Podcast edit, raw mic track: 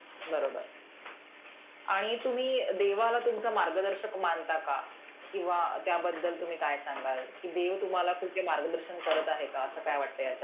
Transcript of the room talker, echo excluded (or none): none